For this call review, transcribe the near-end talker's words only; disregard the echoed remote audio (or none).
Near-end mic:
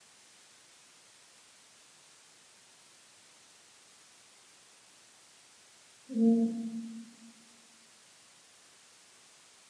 Hmm.